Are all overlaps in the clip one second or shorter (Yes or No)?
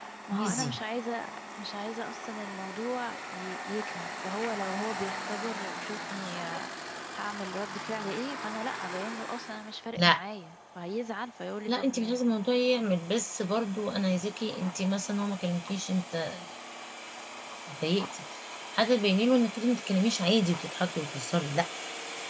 Yes